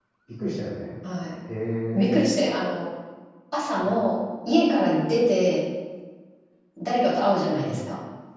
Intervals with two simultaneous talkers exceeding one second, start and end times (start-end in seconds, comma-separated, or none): none